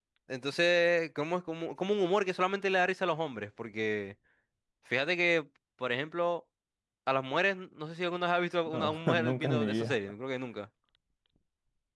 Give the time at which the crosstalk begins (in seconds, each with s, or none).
8.7 s